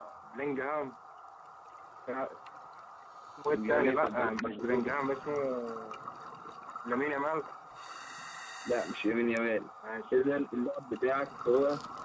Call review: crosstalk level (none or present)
present